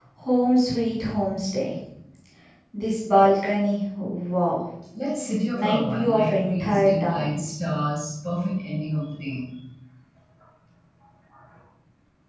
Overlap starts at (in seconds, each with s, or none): 5.5 s